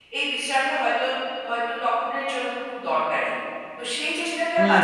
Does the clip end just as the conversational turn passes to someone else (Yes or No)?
Yes